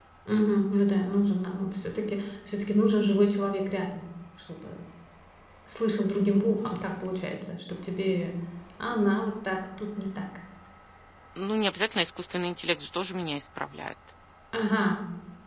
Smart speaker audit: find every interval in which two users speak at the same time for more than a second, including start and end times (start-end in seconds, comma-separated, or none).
none